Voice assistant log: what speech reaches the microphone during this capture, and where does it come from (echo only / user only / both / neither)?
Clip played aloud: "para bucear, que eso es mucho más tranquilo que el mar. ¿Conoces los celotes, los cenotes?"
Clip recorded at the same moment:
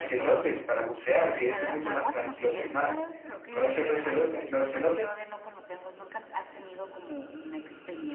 both